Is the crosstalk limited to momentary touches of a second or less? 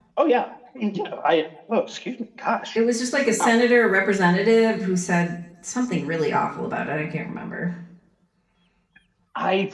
Yes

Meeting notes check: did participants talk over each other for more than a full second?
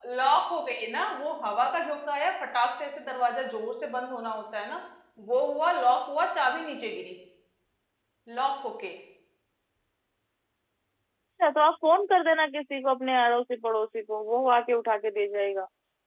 No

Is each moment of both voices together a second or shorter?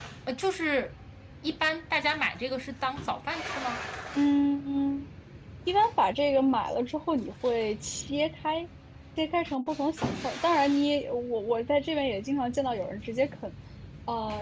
Yes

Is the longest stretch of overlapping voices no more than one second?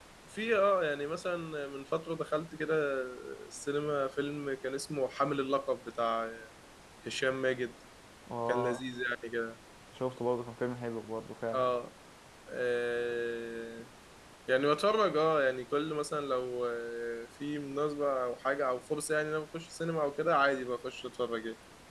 Yes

